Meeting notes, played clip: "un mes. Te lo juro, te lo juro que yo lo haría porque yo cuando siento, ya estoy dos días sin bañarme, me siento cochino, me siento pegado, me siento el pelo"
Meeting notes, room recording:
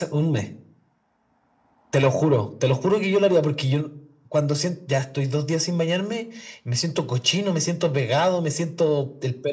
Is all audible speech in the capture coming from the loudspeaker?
Yes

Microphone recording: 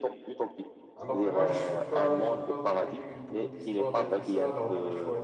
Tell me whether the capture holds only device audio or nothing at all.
No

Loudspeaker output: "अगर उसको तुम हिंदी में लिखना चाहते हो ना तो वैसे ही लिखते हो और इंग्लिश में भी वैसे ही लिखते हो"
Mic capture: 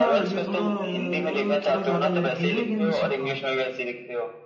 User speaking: Yes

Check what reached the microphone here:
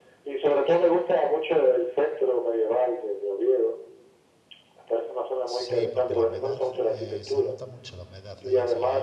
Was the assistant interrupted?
Yes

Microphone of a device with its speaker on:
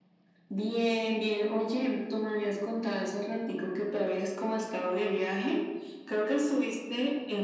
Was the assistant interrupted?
No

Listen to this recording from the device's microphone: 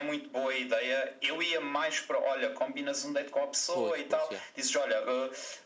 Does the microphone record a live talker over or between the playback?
Yes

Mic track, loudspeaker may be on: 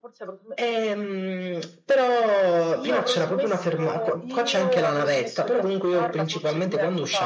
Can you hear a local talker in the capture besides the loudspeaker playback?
No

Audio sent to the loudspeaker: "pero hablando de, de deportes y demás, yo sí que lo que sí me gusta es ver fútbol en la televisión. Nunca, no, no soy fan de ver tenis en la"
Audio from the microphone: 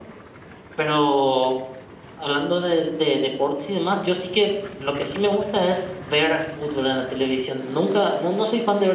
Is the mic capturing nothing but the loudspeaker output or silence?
Yes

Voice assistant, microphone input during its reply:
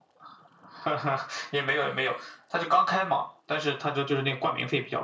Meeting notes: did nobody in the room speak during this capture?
Yes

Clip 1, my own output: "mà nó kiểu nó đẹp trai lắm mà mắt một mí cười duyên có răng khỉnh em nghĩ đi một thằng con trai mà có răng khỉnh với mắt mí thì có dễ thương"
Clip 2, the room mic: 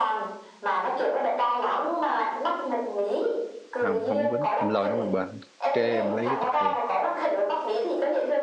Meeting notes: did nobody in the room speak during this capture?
No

